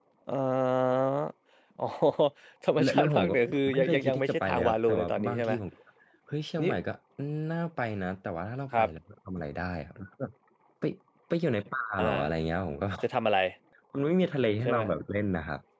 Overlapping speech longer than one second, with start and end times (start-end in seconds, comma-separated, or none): 2.8-5.5